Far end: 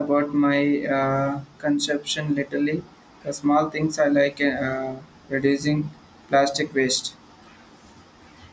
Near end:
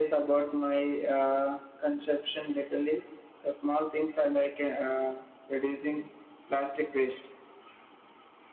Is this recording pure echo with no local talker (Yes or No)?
Yes